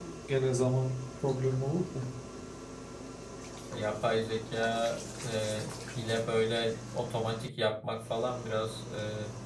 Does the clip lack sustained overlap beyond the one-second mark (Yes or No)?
Yes